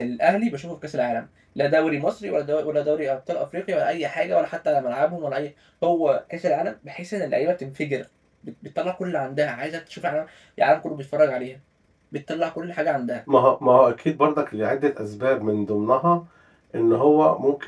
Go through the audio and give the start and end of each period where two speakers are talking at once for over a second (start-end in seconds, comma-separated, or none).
none